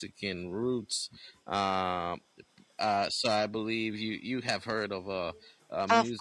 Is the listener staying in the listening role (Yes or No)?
No